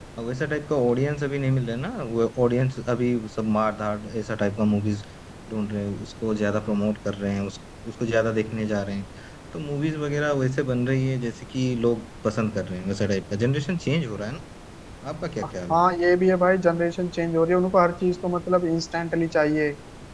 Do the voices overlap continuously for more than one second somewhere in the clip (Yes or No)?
No